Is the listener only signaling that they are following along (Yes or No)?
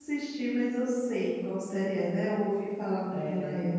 No